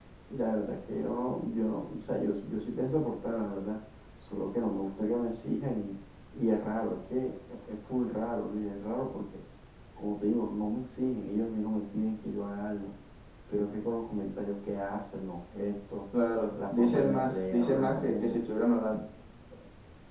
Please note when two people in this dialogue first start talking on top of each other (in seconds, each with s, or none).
16.6 s